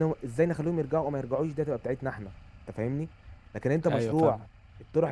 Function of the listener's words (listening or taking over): listening